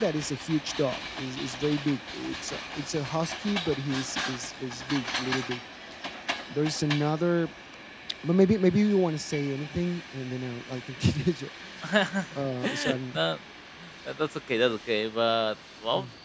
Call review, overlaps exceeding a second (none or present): none